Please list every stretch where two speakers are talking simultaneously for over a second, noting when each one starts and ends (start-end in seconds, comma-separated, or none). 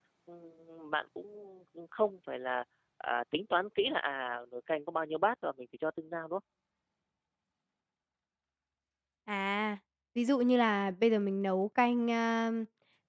none